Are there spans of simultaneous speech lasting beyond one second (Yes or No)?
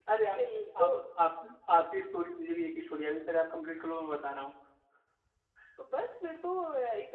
No